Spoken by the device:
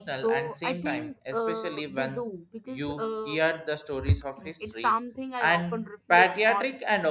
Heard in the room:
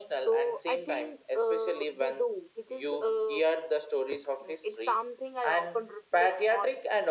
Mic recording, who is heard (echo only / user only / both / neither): echo only